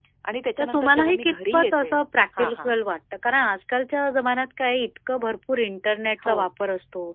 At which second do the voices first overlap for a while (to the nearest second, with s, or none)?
1 s